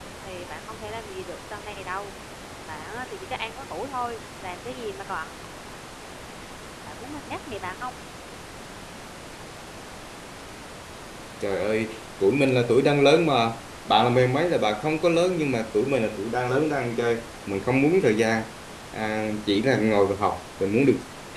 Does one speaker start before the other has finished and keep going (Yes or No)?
No